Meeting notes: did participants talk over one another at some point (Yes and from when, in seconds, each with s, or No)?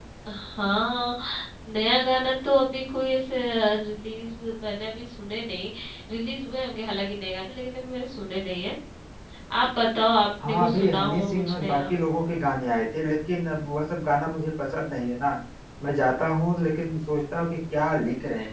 Yes, from 10.4 s